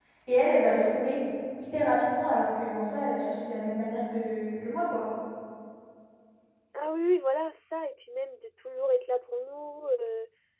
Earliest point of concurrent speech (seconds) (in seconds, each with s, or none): none